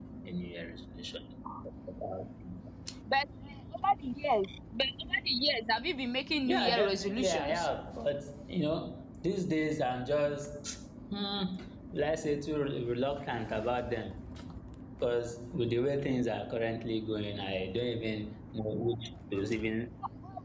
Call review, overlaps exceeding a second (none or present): present